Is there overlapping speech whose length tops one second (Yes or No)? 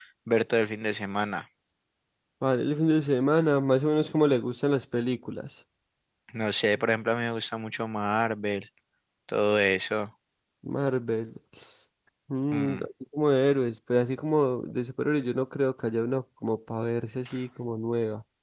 No